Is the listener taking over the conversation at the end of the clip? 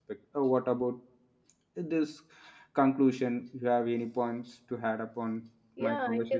Yes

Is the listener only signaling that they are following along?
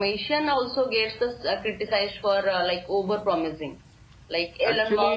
No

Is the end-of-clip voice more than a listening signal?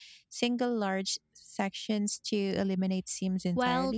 Yes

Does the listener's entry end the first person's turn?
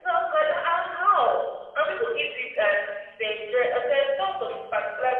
Yes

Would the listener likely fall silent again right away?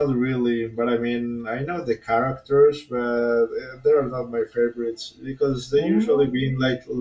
Yes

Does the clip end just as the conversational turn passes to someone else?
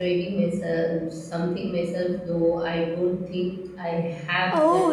Yes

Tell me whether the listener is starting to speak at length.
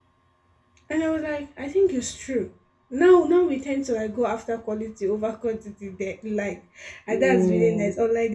No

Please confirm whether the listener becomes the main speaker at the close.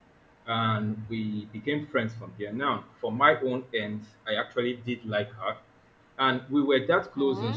No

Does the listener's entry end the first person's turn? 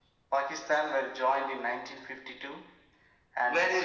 Yes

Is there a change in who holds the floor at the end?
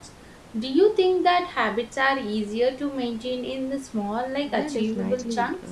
Yes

